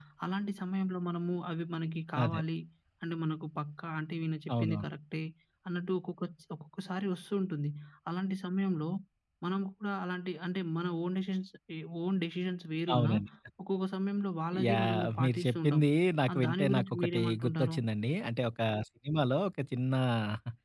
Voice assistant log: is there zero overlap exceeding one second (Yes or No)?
No